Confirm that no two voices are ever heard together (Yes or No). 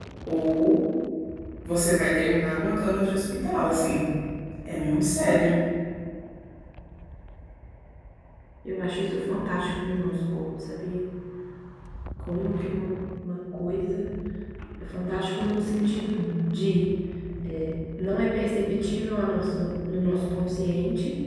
Yes